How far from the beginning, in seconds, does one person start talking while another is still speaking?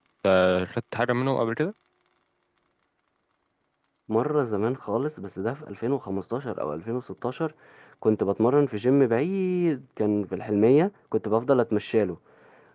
none

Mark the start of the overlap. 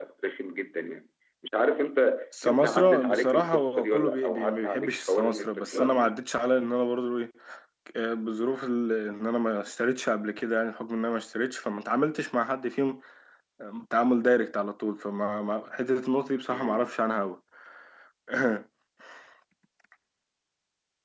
2.4 s

